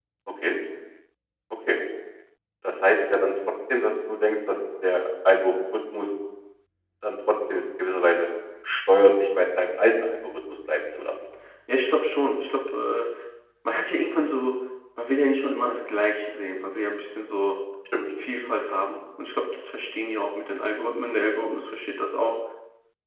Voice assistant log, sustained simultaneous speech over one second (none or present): none